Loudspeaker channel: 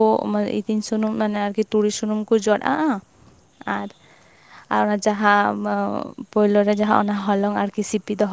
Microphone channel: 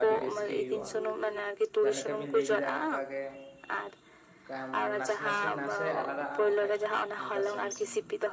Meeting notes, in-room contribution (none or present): present